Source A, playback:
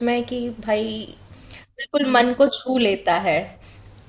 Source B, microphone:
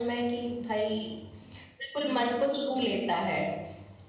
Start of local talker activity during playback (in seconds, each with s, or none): none